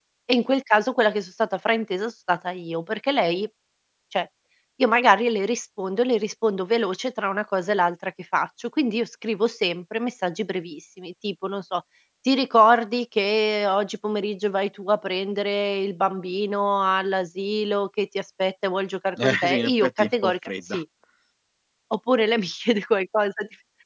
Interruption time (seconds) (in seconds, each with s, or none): 19.2 s